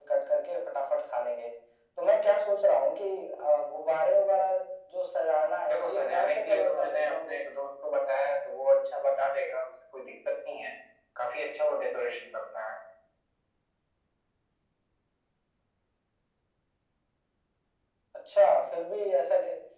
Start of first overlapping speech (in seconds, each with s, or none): 5.7 s